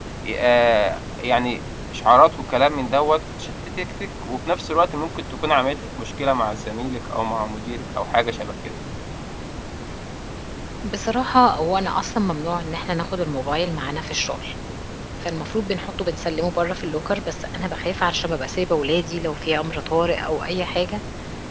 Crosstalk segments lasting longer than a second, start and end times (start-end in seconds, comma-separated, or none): none